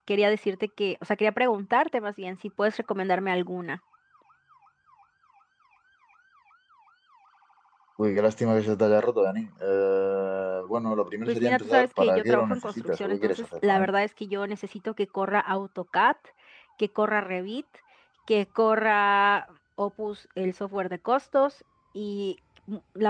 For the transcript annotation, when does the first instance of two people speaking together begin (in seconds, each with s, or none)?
11.3 s